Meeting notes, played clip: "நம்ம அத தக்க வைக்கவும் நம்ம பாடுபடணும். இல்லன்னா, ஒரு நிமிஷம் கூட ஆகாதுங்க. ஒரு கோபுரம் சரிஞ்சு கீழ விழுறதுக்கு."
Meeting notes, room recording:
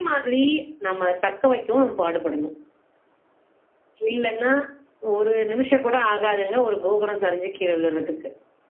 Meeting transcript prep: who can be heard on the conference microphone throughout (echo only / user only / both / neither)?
echo only